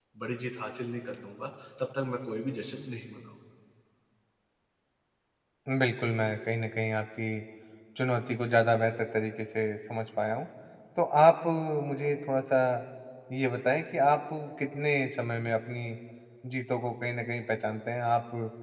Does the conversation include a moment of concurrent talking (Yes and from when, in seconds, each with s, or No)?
No